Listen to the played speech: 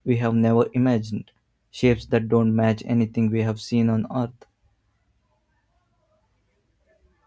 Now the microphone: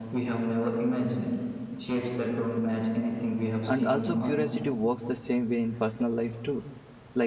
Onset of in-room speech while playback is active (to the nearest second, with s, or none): 4 s